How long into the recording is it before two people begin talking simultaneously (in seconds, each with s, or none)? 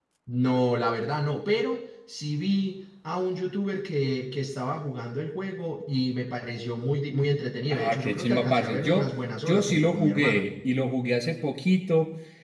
7.7 s